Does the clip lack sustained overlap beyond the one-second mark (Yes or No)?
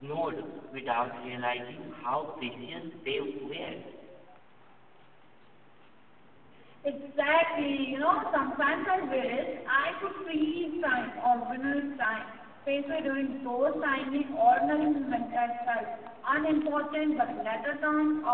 Yes